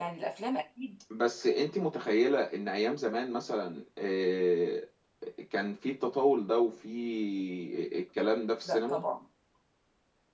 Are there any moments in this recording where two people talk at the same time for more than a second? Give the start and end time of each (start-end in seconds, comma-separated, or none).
none